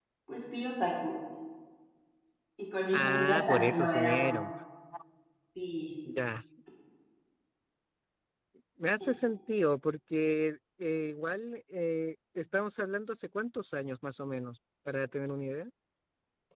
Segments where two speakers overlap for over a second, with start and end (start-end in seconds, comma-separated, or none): 2.9-4.3